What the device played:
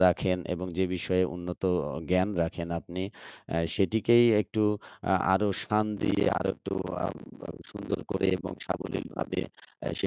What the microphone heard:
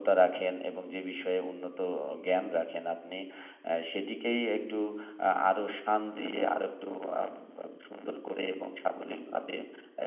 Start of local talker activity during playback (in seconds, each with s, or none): none